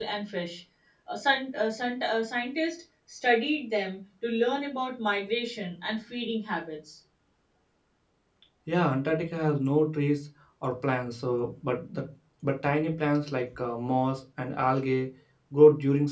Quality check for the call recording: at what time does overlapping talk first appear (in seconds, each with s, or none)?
none